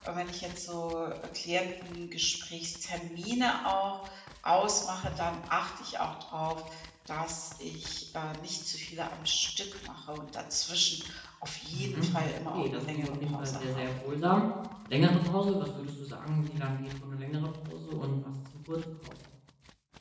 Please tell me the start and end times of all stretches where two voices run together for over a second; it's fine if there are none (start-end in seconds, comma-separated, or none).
11.7-14.0